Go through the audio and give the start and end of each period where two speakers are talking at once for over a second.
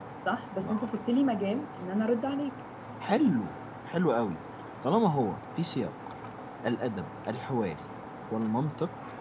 none

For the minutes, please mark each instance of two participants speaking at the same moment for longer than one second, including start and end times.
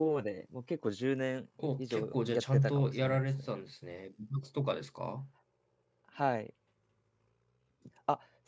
1.8-3.5

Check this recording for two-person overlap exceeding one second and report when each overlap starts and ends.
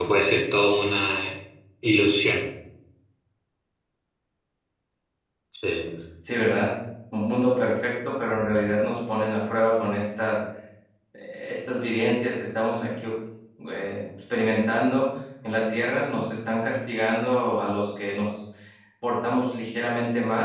none

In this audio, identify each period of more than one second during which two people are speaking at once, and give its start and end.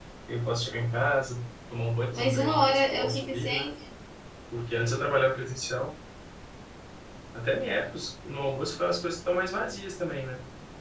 2.1-3.7

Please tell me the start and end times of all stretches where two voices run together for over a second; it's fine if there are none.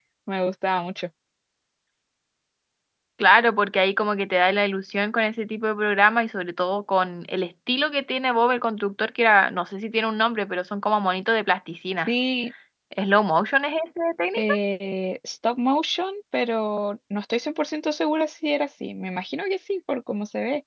none

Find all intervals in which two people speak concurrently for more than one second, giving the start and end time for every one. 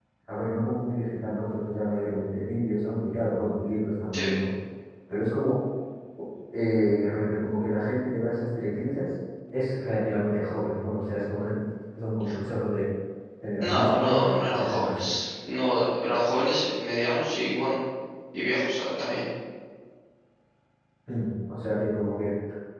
13.6-15.1

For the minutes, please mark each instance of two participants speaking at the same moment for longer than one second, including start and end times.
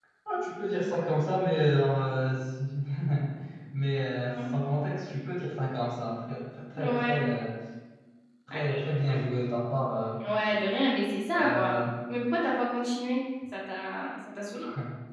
none

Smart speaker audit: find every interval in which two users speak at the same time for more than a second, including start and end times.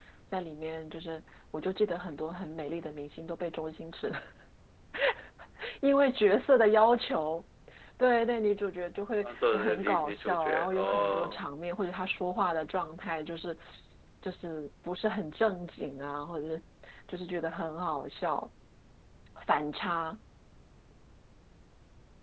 9.2-11.4

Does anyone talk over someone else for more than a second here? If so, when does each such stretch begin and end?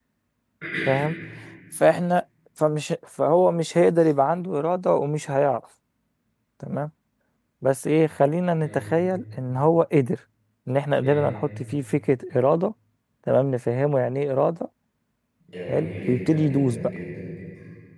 15.7-16.9

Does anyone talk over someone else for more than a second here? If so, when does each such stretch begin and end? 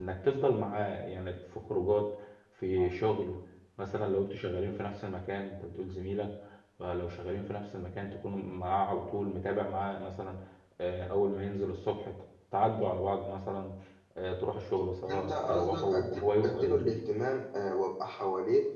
15.1-17.0

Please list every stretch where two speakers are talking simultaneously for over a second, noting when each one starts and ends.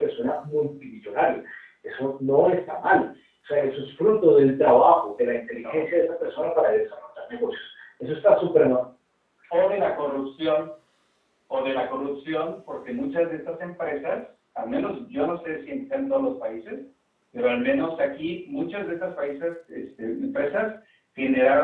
none

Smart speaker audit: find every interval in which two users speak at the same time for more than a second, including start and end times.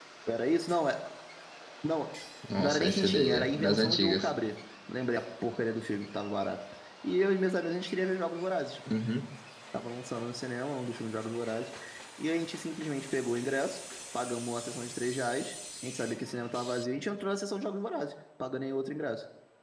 2.6-4.3

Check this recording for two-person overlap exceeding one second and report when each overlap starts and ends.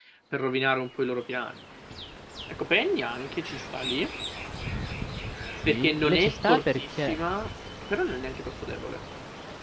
5.7-7.2

